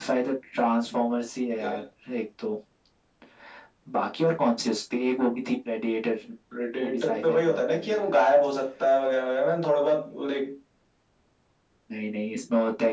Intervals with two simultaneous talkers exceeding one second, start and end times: 6.8-8.1

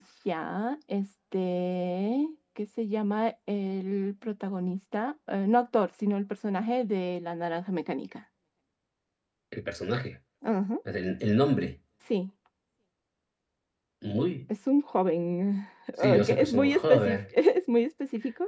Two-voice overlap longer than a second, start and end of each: 16.0-17.2

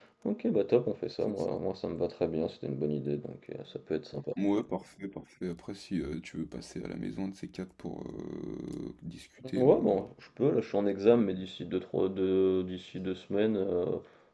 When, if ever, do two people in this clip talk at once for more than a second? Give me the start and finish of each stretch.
none

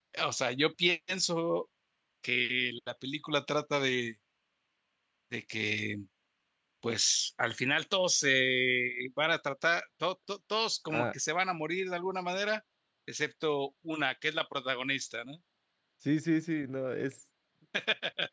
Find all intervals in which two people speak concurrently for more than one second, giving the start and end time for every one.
none

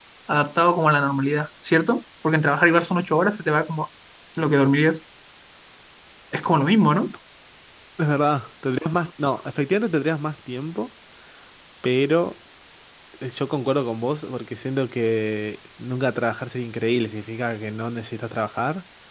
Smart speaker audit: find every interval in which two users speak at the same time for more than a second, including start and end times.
none

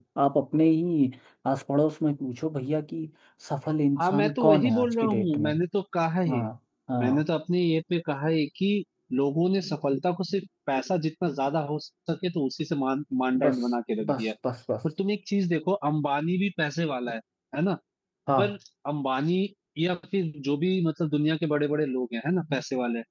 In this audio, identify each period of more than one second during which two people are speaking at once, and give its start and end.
4.0-5.5

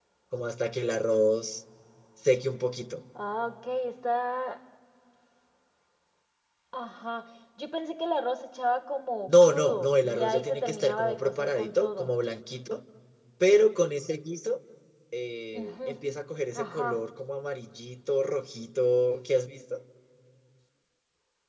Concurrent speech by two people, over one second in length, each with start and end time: 9.3-12.1

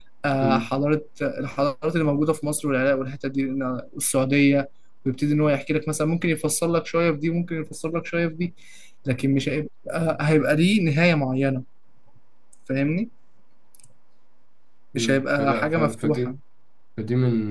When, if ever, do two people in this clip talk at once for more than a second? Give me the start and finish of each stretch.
14.9-16.4

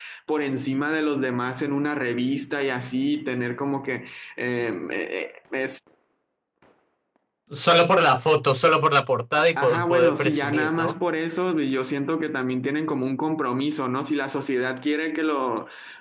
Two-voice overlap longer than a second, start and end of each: 9.4-10.9

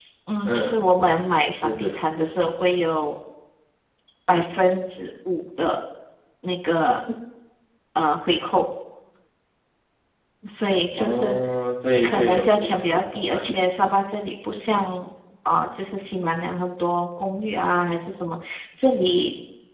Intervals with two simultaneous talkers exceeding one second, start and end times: 12.0-13.6

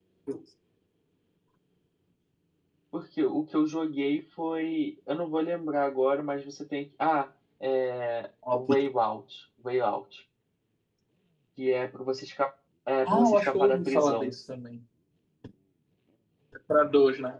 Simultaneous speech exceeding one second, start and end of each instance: 13.1-14.4

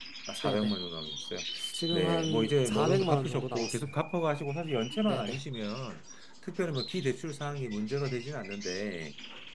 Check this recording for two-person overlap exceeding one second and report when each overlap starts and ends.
1.9-3.9

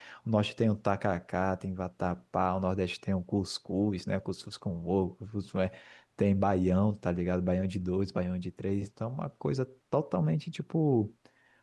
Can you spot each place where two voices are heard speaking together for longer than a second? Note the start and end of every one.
none

